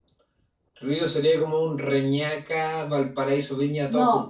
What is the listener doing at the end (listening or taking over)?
taking over